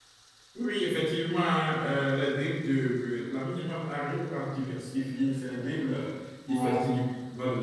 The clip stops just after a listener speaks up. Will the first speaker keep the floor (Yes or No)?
Yes